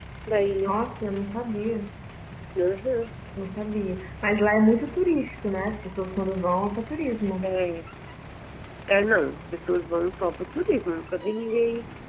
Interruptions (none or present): none